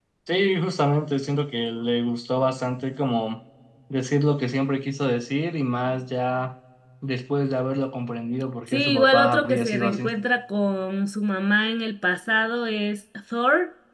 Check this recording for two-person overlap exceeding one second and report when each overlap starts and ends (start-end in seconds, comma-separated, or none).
8.7-10.0